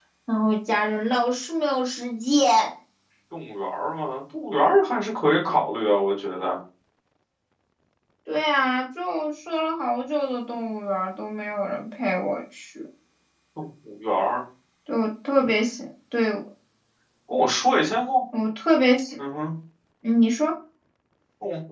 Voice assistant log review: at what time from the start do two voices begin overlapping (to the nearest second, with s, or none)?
none